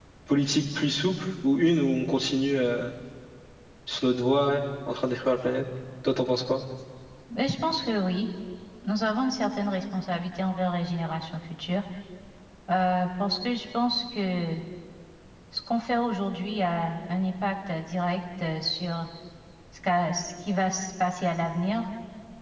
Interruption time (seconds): none

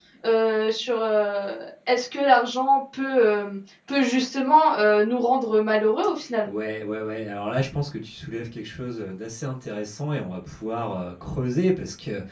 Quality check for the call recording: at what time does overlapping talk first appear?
none

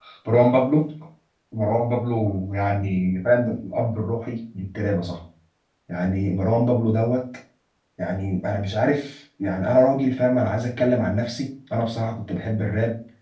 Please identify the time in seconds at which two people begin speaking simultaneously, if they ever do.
none

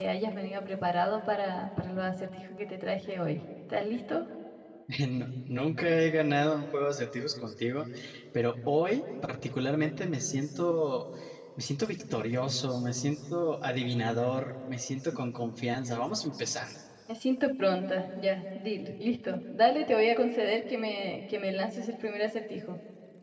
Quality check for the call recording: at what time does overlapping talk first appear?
none

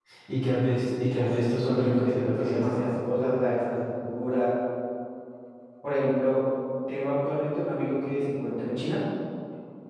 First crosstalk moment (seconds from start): 1.1 s

